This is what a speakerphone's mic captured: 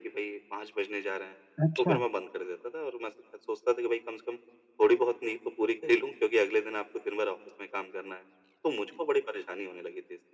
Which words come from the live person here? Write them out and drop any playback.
अच्छा।

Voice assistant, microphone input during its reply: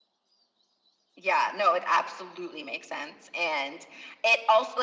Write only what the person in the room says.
none

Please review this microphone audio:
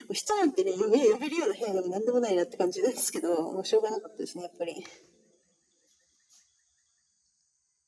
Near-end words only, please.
none

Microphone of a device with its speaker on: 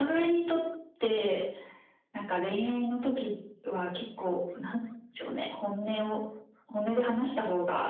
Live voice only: none

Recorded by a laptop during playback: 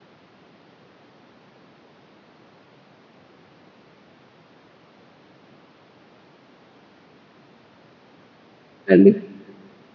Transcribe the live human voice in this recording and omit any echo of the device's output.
கண்டிப்பா.

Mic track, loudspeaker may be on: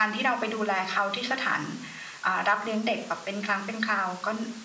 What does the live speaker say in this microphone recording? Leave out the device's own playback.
none

